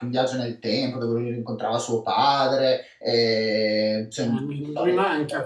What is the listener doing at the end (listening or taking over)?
taking over